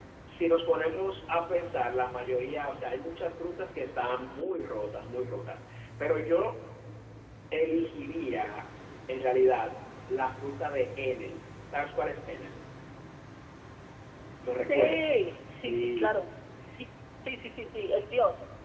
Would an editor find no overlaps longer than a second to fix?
No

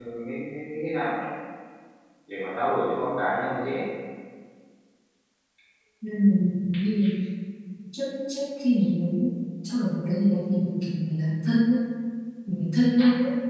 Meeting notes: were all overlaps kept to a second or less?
Yes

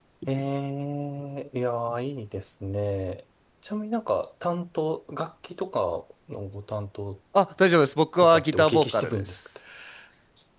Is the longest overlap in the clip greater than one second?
Yes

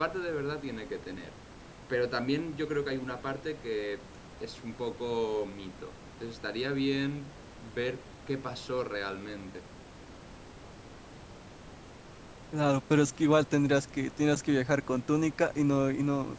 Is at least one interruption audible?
No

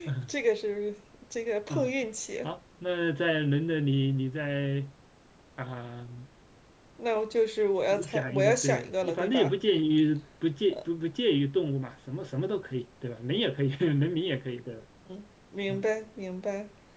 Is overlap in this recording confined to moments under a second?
No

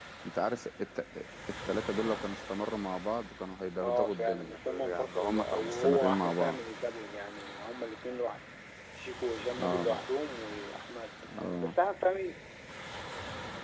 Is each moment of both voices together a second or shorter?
No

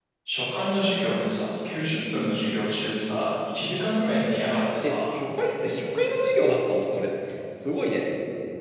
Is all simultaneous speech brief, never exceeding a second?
Yes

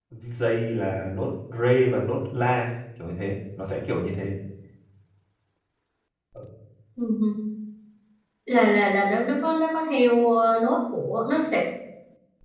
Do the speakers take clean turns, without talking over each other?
Yes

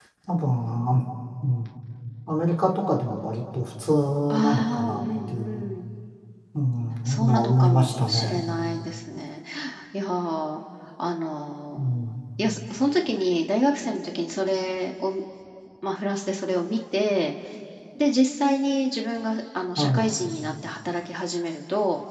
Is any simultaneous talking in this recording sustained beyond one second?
Yes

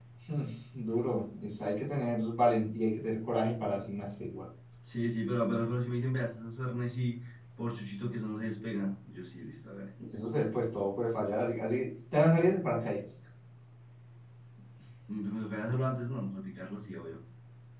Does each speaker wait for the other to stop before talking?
Yes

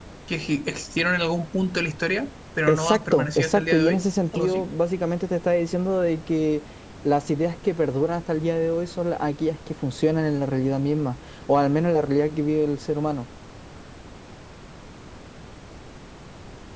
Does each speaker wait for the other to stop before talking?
No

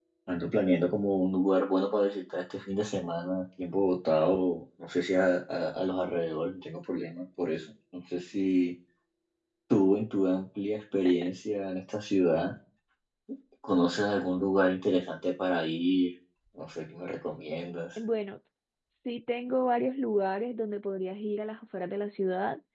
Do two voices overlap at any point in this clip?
No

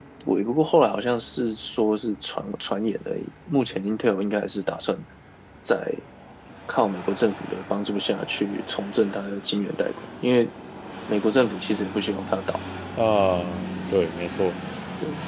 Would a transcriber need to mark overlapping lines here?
No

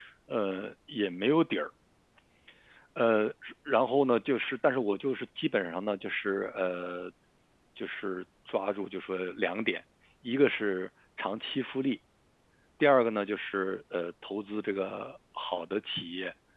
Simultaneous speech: No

